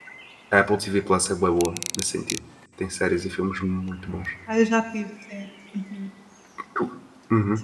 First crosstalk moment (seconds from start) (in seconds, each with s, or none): none